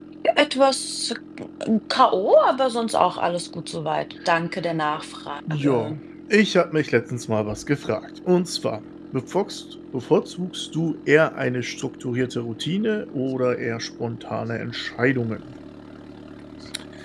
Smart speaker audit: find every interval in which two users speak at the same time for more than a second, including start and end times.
none

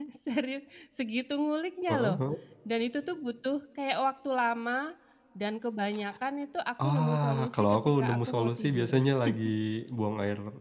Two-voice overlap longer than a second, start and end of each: 6.8-9.0

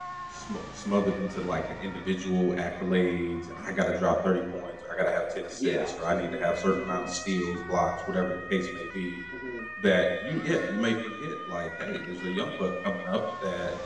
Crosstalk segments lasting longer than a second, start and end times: 5.5-7.1

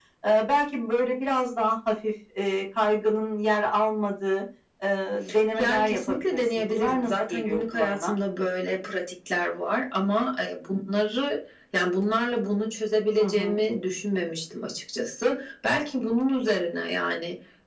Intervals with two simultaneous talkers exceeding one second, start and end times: 5.6-8.1

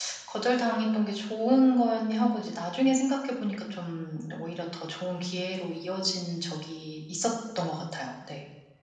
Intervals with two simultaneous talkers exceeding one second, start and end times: none

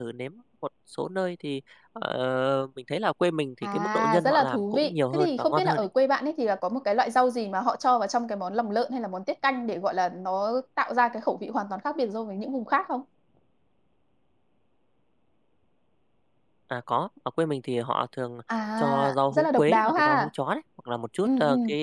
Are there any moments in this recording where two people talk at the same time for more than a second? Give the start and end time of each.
3.6-5.9, 18.8-20.3

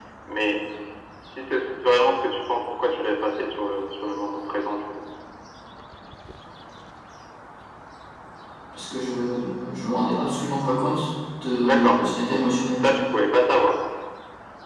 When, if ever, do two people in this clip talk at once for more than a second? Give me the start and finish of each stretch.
11.6-12.8

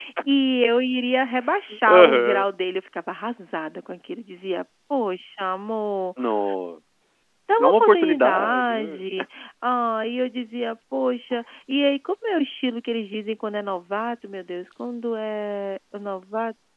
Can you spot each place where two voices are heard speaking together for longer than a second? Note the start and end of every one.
7.6-9.0

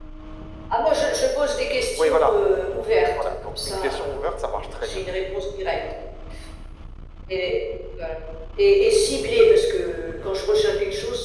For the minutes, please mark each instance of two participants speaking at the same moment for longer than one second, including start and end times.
3.2-5.0

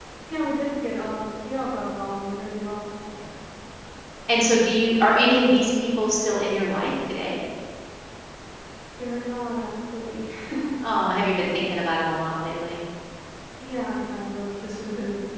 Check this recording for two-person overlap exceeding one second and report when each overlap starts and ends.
none

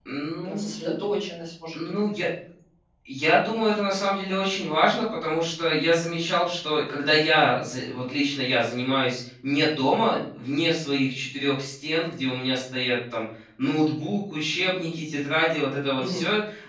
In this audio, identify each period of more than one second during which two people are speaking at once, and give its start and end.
none

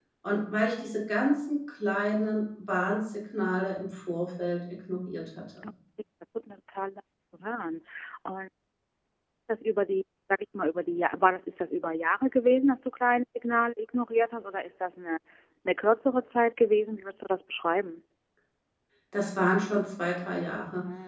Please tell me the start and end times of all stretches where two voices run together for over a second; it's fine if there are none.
none

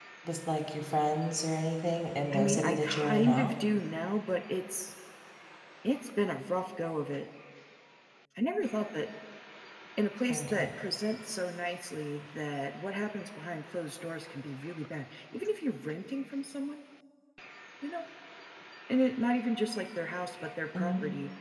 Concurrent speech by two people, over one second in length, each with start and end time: 2.3-3.5

